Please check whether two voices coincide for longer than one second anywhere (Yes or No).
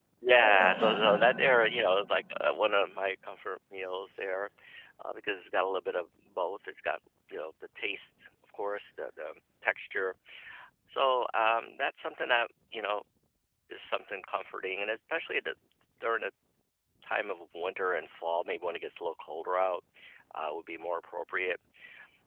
No